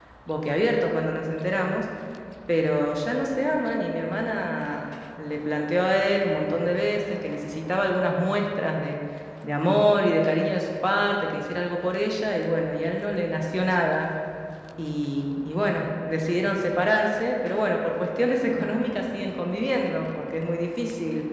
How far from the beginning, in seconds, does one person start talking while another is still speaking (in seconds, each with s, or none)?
none